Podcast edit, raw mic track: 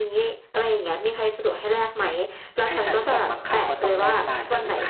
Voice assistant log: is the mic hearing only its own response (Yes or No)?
No